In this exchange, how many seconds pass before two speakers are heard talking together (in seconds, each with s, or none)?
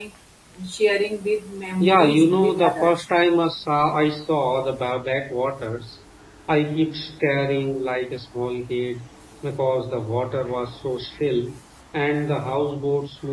1.8 s